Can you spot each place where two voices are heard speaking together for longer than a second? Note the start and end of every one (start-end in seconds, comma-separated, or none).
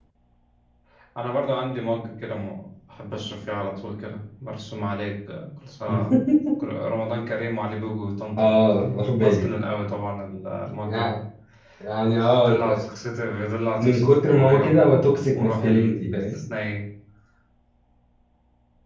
13.7-16.4